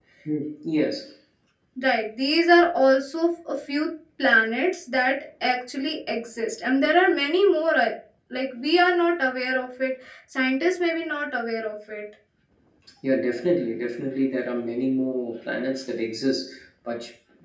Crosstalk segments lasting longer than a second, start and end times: none

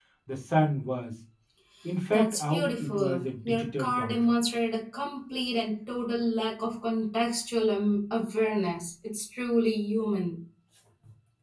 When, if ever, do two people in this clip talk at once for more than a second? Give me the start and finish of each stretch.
2.1-4.2

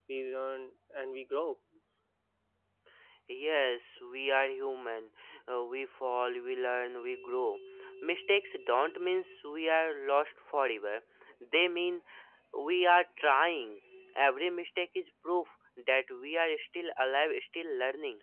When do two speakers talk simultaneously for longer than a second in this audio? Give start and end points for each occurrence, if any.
none

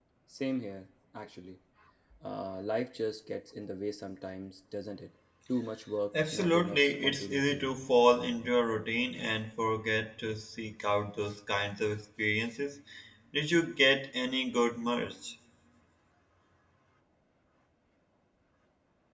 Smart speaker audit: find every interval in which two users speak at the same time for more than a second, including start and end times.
6.1-7.6

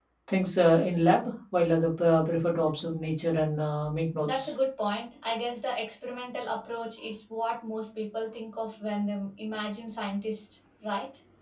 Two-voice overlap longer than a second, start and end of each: none

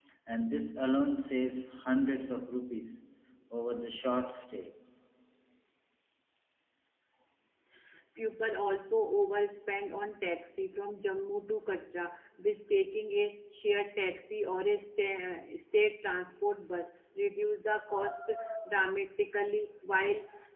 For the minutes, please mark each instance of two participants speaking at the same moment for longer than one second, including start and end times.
none

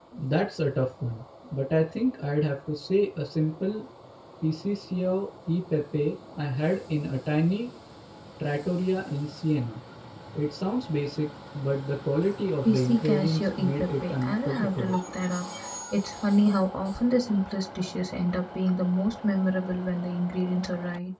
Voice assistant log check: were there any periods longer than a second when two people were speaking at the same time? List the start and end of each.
12.7-14.9

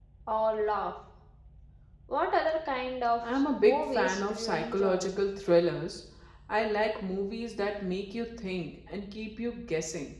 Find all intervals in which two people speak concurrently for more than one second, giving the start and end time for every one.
3.4-5.1

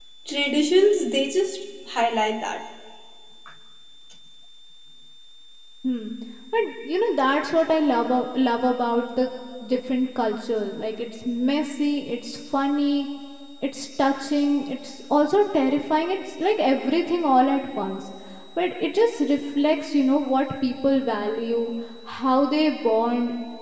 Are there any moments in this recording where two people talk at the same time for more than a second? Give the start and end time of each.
none

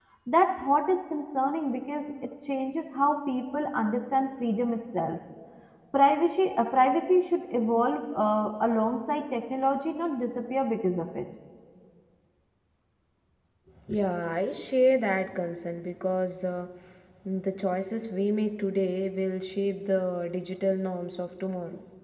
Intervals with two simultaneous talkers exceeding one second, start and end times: none

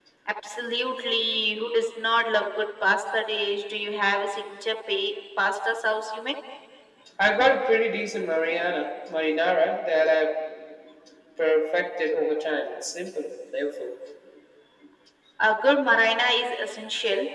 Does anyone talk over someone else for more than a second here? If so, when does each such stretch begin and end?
none

